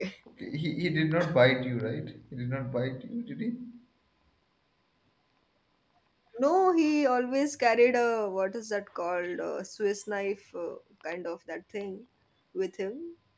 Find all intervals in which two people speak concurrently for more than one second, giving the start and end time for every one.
none

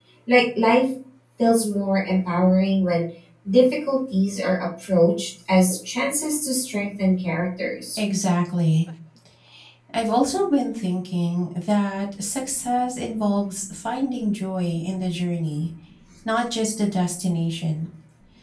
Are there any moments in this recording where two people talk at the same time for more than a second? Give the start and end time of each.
none

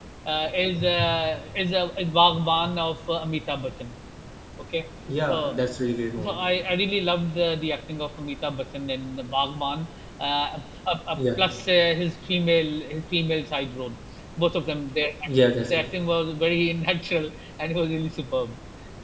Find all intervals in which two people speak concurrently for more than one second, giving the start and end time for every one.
none

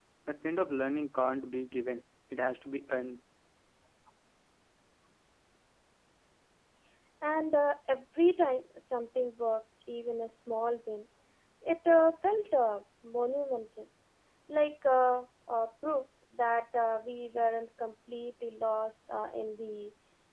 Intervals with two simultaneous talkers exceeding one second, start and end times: none

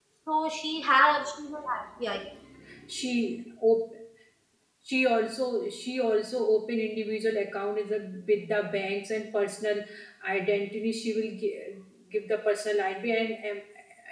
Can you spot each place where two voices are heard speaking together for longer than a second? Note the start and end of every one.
none

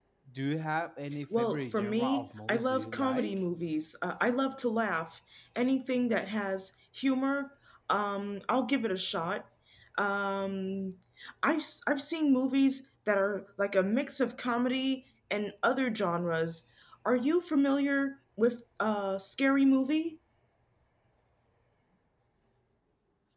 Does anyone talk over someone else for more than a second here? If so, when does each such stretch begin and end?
1.4-3.4

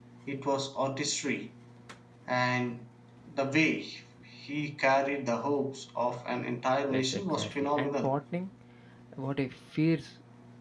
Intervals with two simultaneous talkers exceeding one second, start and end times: 6.9-8.2

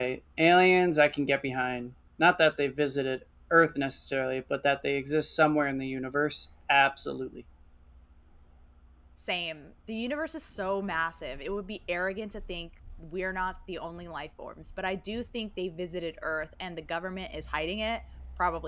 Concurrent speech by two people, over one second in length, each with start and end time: none

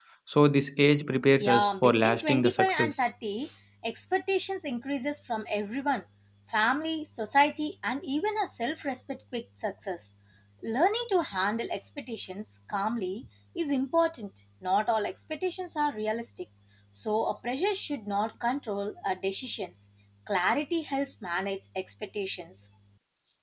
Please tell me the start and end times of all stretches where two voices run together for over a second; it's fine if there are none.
1.4-2.9

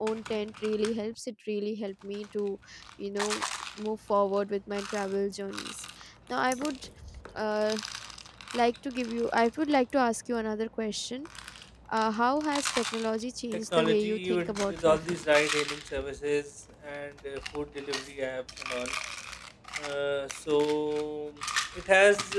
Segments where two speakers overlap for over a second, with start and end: 13.5-15.0

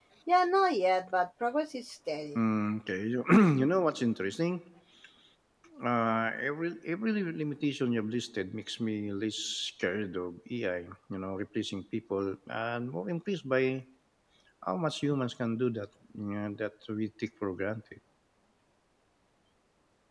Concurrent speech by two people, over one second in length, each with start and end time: none

